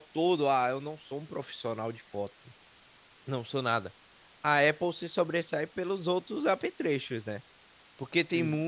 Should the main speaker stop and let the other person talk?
No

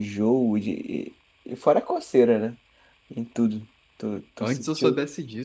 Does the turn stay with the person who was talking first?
No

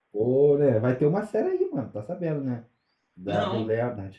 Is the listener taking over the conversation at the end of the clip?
No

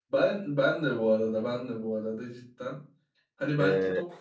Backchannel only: Yes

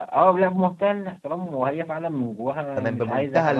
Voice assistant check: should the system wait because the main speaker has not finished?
No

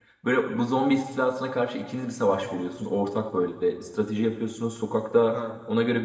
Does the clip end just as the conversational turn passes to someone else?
No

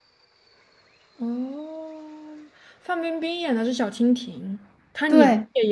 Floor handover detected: No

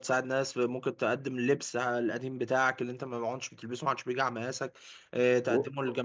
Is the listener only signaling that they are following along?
Yes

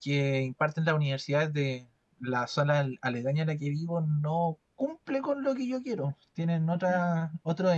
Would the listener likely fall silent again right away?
Yes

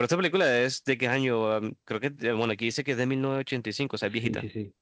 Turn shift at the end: Yes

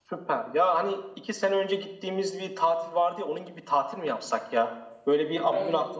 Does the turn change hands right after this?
No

